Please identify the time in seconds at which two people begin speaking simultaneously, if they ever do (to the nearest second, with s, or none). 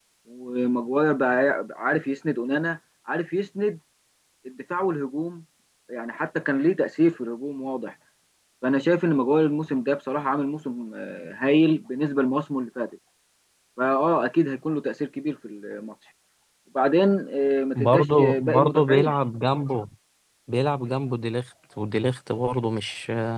18 s